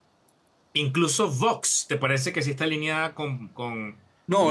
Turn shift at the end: Yes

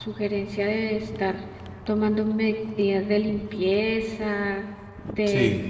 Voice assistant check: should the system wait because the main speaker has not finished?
Yes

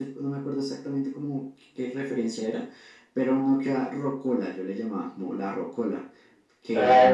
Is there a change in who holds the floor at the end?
Yes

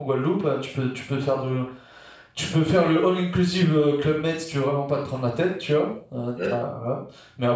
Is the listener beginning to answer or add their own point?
No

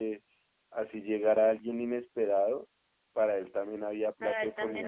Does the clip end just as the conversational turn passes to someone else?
Yes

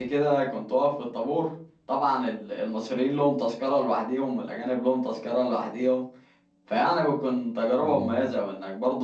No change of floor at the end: Yes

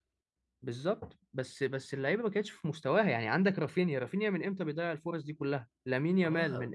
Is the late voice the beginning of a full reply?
Yes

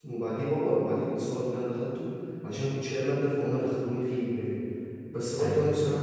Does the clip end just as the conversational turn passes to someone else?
No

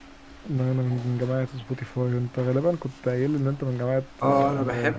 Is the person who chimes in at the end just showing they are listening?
No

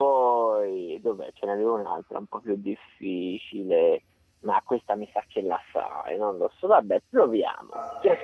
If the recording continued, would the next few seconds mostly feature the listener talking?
No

